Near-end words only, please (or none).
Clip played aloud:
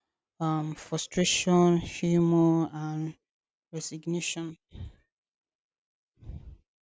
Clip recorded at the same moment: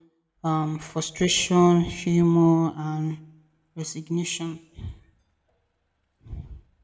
none